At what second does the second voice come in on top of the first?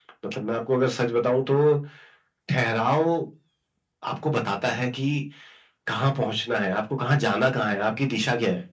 none

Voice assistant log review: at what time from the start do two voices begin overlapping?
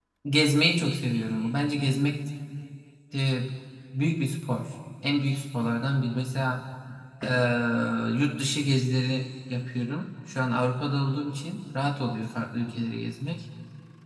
none

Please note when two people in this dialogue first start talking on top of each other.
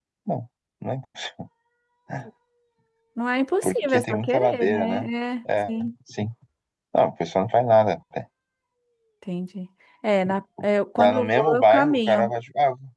3.6 s

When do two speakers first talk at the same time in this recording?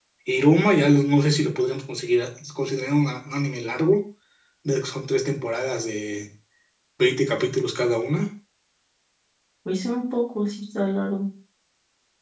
none

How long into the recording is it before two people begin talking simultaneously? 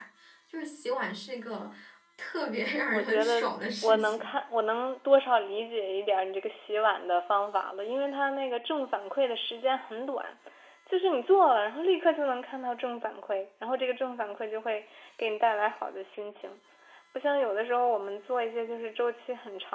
2.9 s

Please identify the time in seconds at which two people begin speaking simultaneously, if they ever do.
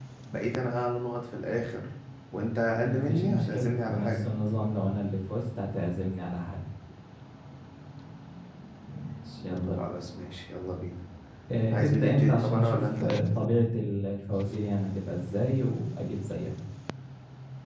2.8 s

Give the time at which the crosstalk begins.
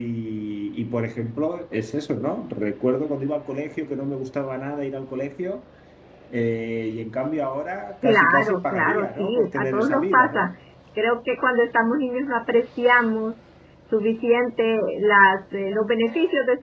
8.0 s

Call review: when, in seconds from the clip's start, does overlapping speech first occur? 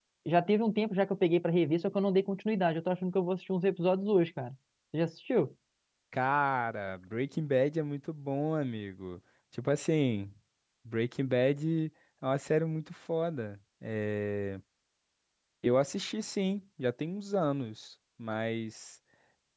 none

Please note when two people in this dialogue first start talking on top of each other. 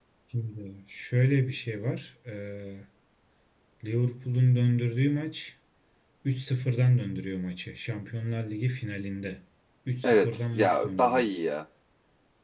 10.0 s

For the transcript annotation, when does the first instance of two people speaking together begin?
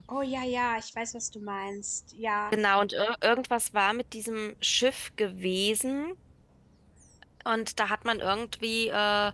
none

